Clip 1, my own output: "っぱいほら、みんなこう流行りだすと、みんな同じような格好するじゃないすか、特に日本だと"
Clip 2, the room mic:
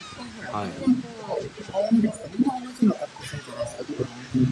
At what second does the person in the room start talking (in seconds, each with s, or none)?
0.5 s